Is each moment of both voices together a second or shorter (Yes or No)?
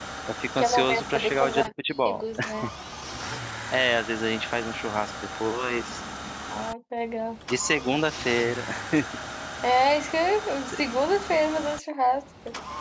No